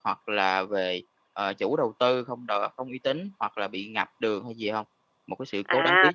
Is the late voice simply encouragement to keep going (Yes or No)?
No